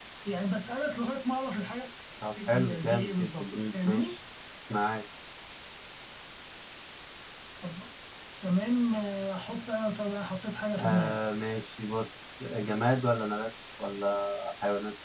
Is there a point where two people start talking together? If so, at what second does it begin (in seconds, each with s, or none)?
2.5 s